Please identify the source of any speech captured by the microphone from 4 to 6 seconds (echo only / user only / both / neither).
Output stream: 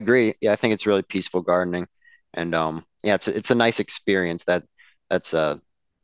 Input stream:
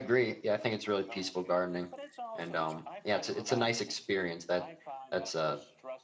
both